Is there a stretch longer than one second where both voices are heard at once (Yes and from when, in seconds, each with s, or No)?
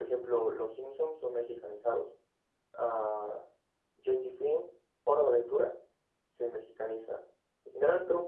No